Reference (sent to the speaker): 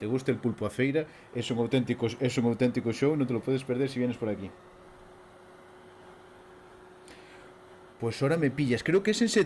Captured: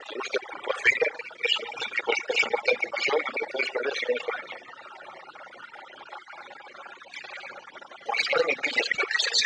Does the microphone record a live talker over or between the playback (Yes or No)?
No